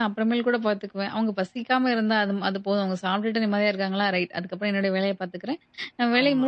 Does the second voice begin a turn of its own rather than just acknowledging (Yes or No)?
No